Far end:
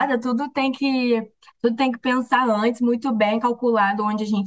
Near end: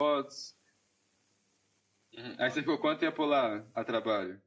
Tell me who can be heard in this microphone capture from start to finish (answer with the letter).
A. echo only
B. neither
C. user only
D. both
C